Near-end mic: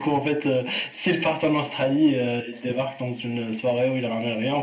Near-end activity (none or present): none